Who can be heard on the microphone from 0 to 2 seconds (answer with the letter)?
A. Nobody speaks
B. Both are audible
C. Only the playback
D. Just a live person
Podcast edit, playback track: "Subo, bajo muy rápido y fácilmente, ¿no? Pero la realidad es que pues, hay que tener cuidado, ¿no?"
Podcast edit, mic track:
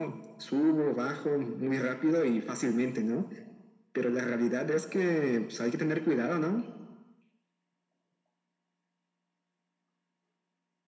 C